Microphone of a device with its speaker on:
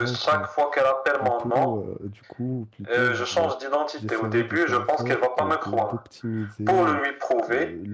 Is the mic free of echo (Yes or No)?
No